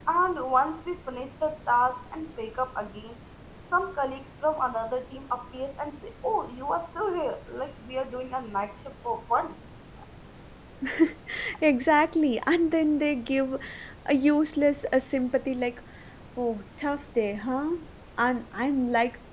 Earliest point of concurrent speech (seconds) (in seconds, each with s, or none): none